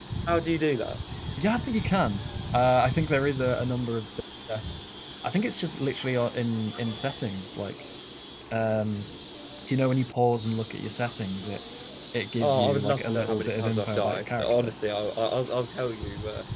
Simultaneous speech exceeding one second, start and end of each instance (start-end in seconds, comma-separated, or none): 12.4-14.7